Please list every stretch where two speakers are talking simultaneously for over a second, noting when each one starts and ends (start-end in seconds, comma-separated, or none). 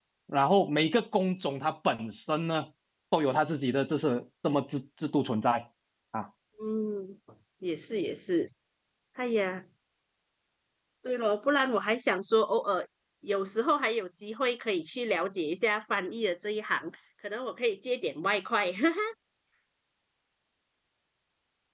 none